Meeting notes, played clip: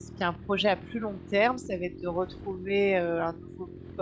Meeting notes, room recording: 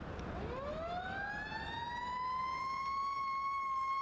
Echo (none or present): none